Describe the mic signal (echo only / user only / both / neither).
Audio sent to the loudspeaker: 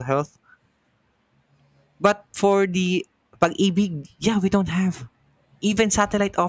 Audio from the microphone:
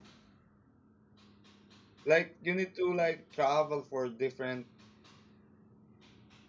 user only